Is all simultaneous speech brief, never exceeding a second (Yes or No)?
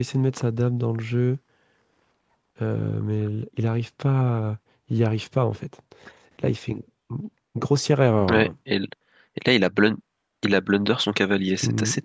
Yes